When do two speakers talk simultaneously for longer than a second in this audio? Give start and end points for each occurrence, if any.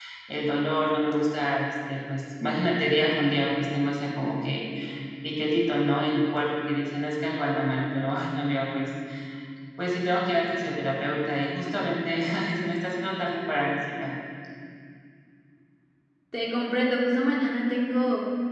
none

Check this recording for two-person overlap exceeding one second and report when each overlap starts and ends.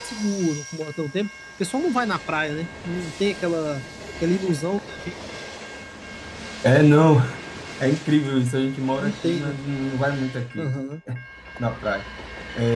none

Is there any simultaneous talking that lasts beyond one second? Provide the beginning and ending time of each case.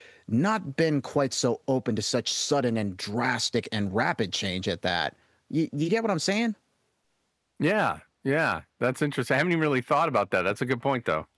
none

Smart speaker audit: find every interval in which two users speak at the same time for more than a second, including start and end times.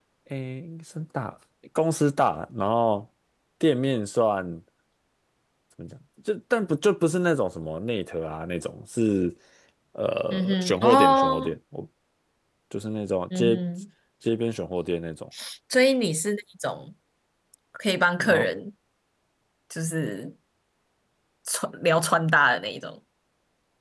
10.3-11.5

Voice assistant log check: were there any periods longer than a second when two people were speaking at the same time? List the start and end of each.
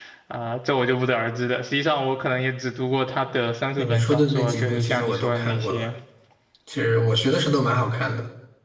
3.8-5.9

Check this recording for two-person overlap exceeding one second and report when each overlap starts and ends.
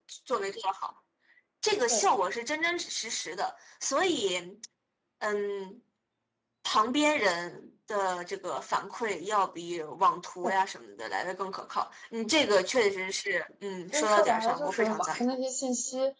13.9-15.2

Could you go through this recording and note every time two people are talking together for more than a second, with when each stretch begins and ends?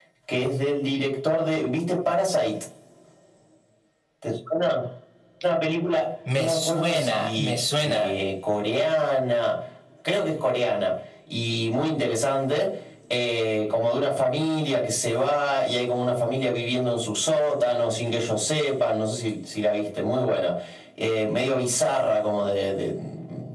6.3-8.1

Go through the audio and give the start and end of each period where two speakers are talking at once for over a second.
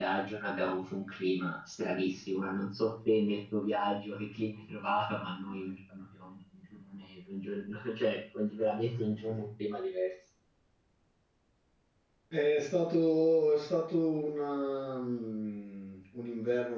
none

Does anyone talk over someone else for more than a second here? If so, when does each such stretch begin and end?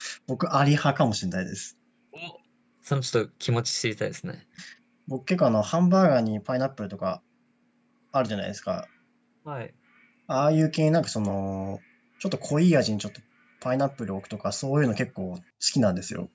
none

